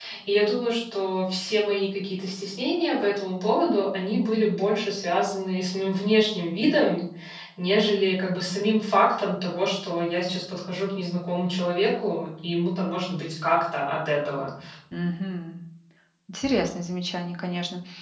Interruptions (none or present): none